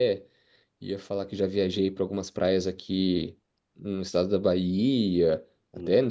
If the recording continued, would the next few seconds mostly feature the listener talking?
No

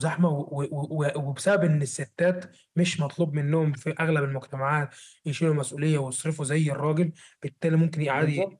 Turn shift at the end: No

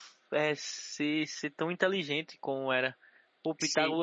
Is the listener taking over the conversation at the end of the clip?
No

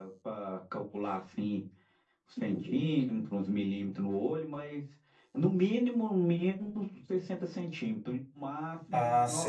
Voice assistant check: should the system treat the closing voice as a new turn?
Yes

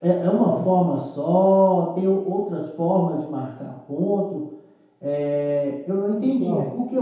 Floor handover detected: No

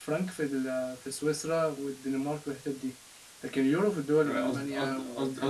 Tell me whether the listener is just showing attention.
No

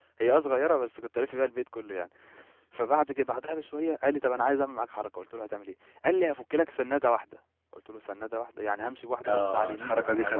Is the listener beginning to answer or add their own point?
Yes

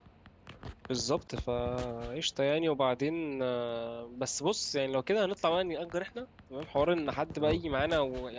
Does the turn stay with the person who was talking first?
Yes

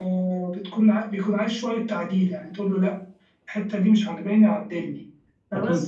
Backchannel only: Yes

